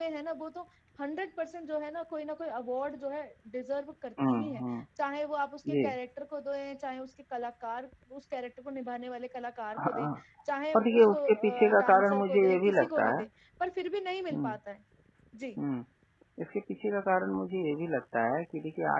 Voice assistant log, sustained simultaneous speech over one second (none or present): present